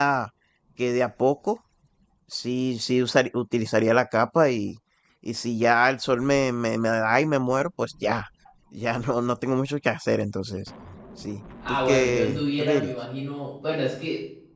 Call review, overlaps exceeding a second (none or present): present